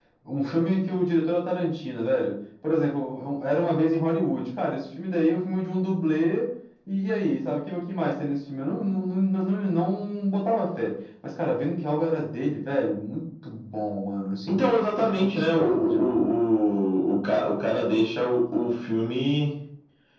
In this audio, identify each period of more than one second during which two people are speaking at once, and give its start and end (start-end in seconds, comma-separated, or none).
14.5-16.3